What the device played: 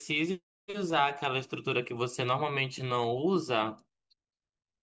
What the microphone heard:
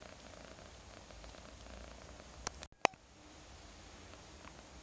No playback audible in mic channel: Yes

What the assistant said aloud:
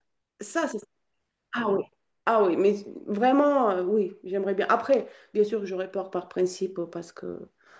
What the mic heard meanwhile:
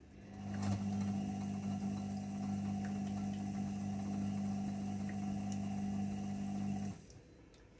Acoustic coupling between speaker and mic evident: No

